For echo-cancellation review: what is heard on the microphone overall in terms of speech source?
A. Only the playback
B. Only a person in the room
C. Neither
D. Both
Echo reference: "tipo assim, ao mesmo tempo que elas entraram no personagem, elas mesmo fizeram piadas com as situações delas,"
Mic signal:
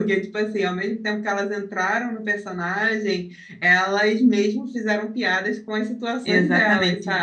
D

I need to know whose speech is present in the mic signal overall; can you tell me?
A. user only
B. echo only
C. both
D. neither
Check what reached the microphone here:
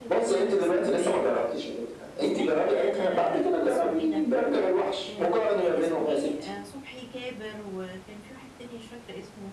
C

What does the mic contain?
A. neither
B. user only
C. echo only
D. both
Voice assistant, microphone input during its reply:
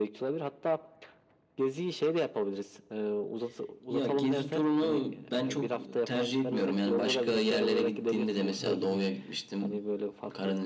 D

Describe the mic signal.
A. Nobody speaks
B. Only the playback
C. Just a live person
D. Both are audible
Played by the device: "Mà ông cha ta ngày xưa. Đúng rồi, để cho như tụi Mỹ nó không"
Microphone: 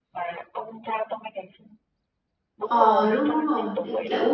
D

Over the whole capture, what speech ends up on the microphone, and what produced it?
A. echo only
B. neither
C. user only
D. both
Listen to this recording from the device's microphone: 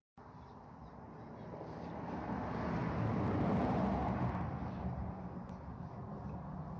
B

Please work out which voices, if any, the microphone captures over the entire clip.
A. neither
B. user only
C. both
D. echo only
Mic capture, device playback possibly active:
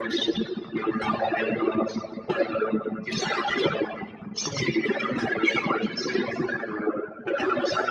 D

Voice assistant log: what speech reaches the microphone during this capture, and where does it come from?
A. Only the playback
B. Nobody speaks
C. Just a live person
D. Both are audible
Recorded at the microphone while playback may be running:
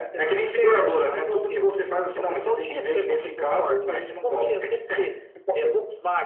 A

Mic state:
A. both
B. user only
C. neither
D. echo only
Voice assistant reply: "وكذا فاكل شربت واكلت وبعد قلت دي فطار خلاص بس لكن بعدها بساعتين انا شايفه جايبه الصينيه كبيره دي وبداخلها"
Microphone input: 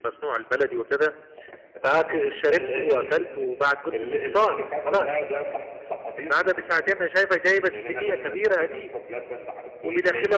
A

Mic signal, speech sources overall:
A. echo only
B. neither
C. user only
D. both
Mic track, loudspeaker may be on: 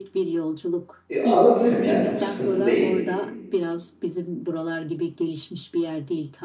D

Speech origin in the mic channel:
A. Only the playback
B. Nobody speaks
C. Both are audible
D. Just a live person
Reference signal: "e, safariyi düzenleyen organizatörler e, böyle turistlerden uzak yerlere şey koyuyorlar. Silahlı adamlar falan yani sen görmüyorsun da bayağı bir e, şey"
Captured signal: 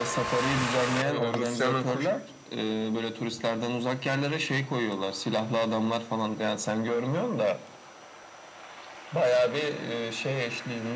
C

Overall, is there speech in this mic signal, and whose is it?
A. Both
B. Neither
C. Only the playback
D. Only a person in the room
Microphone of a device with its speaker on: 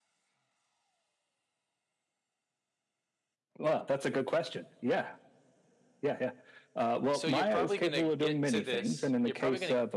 A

